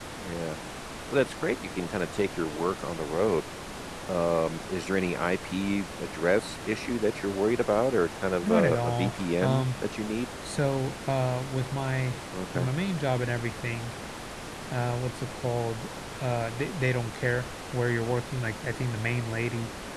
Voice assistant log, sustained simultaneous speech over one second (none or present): present